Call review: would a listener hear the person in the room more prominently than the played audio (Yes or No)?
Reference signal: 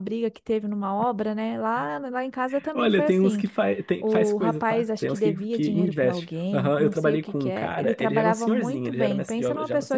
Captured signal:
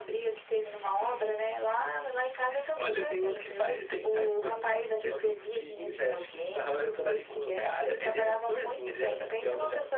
No